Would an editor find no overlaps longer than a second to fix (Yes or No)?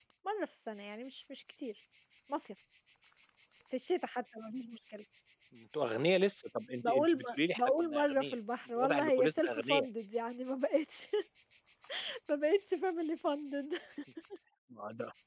No